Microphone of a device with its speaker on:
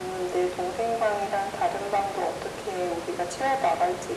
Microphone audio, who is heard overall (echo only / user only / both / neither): echo only